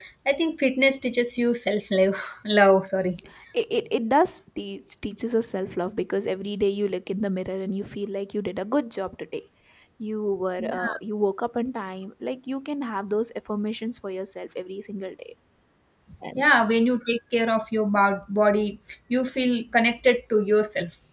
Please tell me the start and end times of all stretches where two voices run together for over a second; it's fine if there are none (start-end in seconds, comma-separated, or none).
none